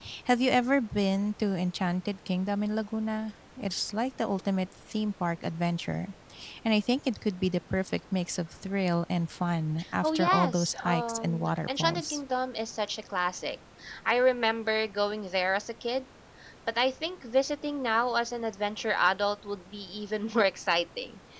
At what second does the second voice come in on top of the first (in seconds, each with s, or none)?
10.0 s